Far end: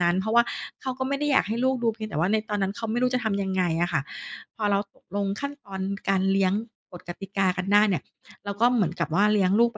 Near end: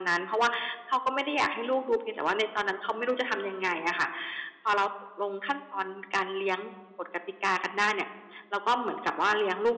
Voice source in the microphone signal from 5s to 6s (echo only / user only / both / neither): echo only